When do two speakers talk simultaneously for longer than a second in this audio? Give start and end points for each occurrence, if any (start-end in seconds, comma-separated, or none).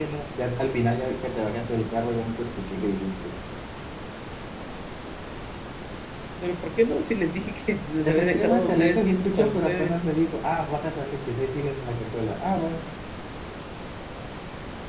8.1-9.9